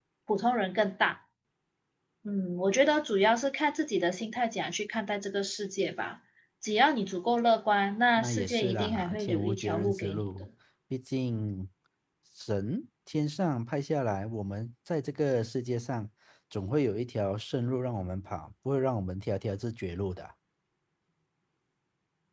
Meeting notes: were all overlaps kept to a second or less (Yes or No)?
No